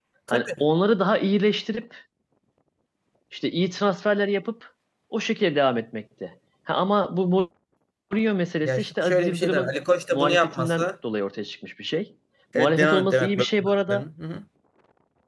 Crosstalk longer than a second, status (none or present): present